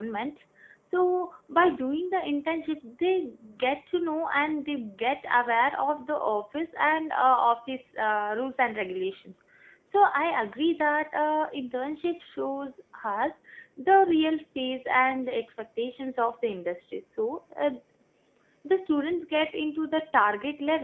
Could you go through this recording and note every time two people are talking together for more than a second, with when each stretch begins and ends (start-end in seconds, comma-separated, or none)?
none